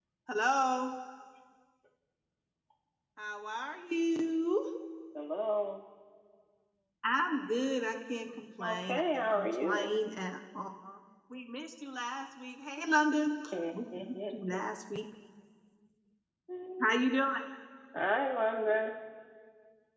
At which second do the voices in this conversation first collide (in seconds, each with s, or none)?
8.6 s